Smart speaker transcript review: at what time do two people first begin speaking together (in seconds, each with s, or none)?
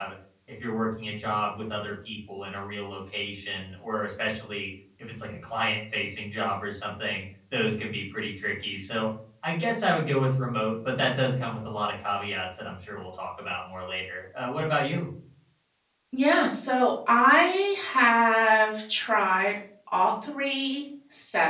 none